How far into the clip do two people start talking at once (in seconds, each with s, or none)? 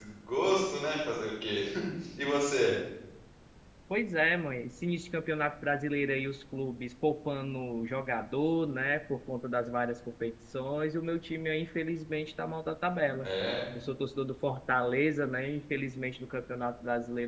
none